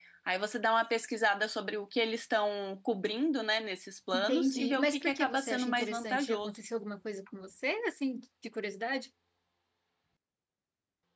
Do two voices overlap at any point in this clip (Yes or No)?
Yes